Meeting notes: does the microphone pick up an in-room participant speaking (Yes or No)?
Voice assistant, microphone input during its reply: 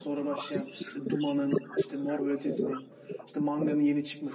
Yes